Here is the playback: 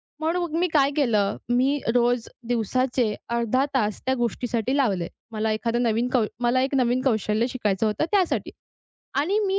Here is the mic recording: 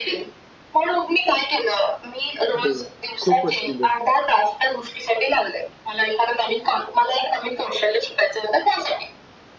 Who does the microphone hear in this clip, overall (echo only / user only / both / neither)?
both